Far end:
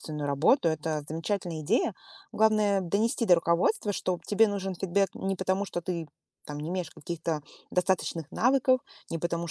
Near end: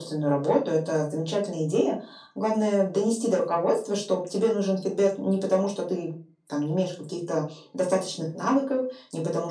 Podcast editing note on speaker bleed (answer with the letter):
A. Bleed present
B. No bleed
A